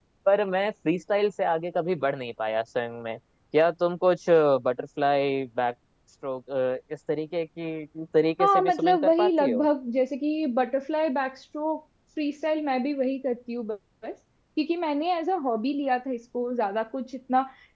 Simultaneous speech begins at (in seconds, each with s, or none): 8.4 s